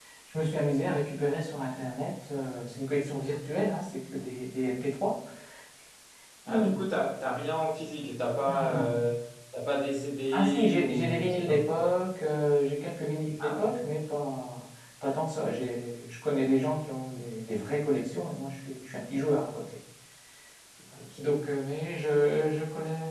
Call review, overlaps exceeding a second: present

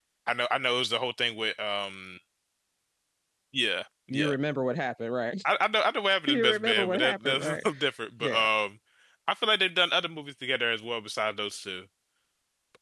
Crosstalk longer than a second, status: present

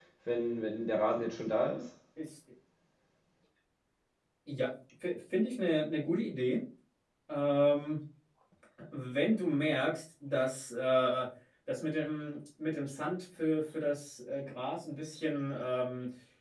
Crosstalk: none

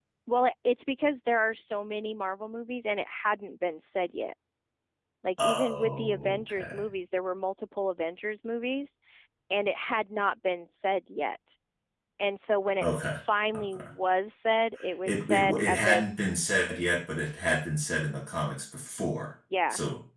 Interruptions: present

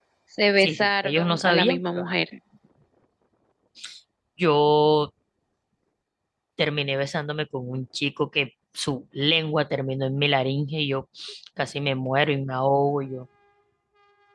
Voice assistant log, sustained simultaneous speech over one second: present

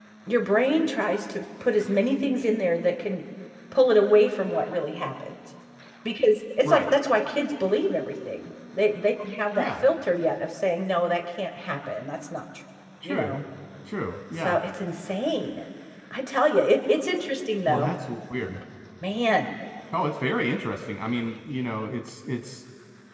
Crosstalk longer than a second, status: none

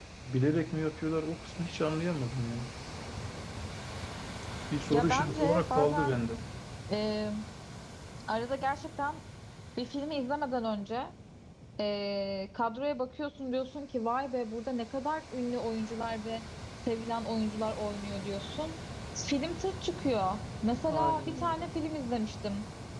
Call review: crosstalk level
present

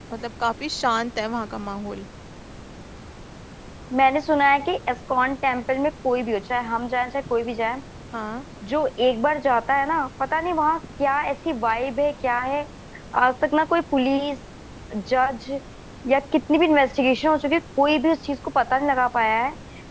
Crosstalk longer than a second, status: none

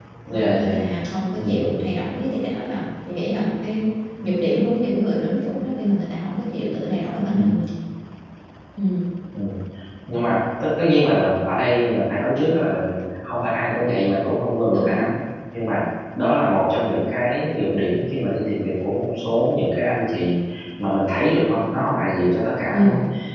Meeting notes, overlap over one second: none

